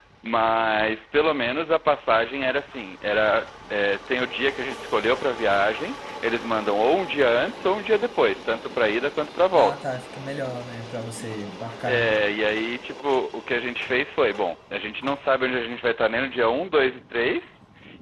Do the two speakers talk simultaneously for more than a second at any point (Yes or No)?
No